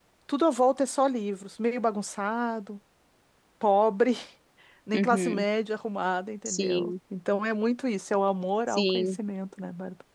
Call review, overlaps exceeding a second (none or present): none